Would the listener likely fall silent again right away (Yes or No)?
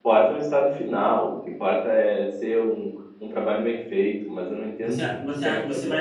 No